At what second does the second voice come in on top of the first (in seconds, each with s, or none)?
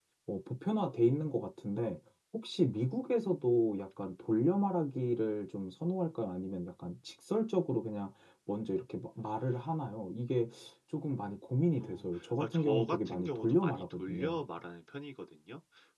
11.8 s